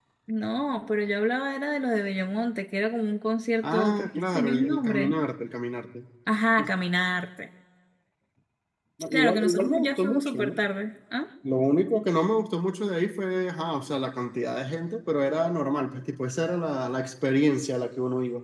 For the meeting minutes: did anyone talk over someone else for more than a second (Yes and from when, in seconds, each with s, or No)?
Yes, from 3.6 s